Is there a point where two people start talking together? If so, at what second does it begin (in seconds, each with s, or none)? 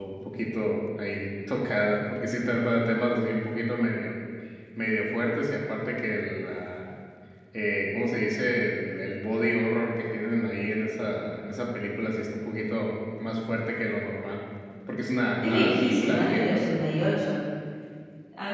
15.4 s